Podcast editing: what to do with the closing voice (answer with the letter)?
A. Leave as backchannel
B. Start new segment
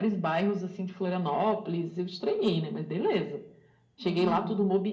A